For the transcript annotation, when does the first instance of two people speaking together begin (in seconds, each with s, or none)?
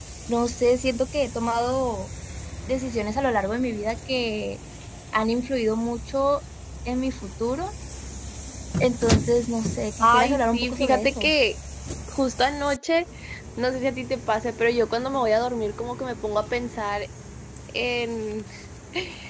10.0 s